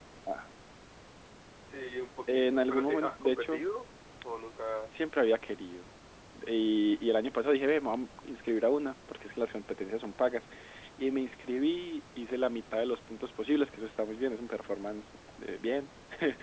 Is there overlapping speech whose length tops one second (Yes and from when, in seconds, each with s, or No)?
Yes, from 2.3 s